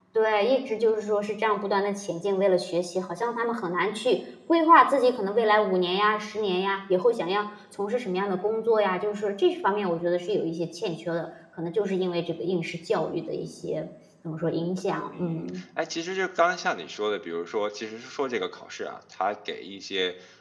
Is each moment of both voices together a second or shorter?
Yes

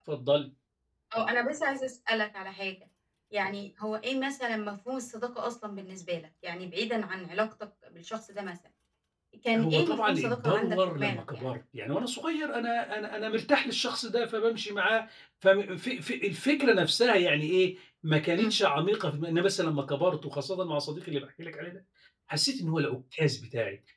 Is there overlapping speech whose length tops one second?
Yes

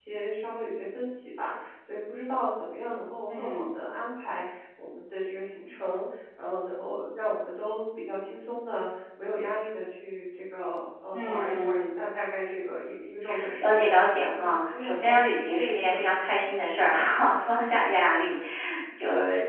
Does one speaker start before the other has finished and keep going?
Yes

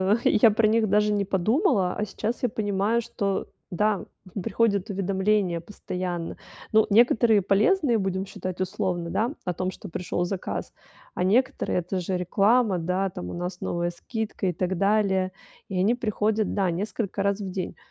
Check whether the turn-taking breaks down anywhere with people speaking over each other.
No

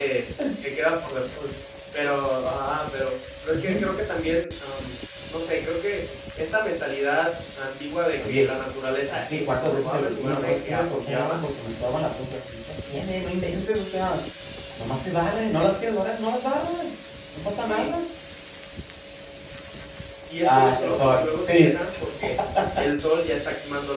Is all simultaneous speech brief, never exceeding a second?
No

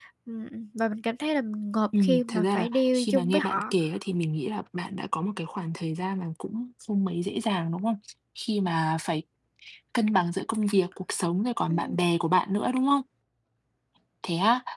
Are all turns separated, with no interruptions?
No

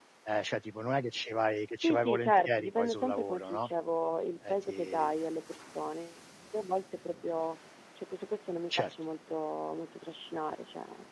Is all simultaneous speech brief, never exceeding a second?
No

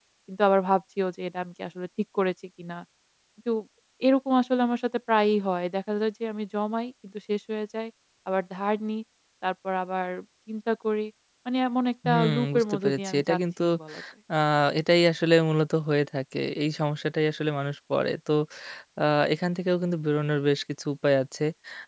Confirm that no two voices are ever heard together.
No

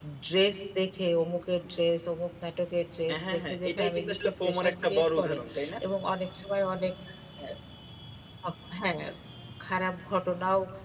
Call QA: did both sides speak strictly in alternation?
No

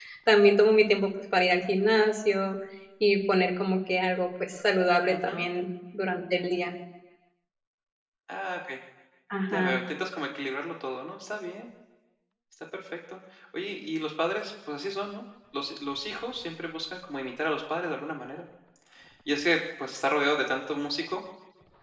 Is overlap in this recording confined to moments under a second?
Yes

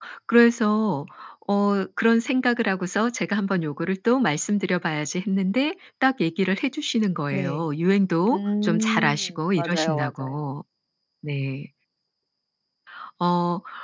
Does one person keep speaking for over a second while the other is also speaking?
Yes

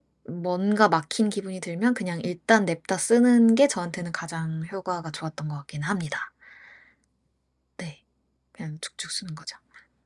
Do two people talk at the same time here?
No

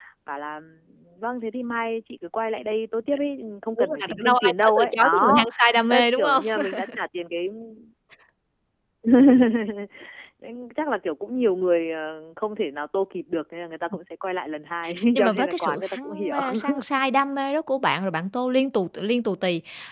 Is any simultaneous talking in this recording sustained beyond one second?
Yes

